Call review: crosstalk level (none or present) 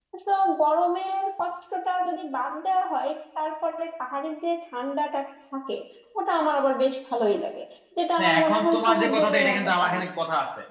present